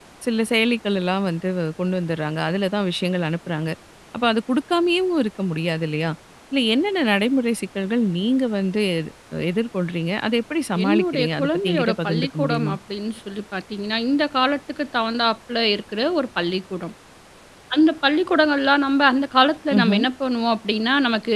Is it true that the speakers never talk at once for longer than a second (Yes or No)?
No